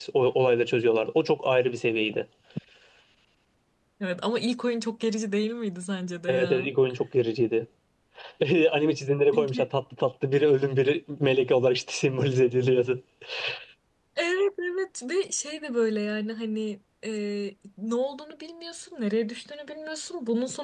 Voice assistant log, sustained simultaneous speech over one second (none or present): none